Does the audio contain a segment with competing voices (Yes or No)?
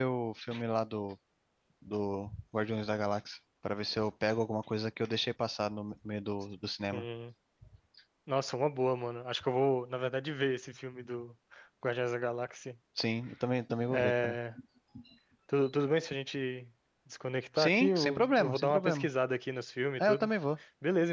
Yes